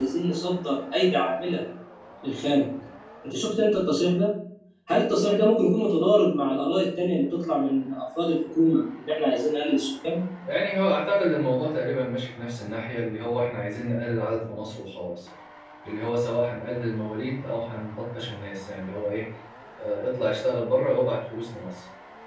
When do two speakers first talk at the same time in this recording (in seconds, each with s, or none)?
none